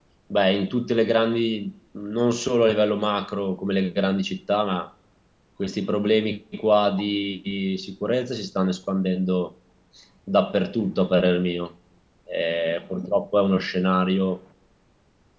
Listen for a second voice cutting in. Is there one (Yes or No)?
No